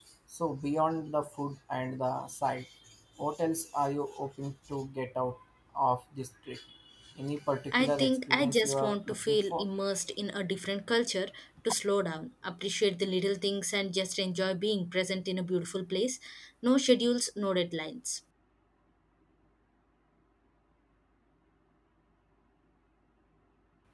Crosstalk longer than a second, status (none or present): present